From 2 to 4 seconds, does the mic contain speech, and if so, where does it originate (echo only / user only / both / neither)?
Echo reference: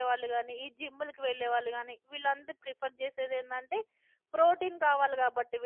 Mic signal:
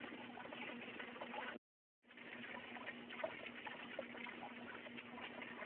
neither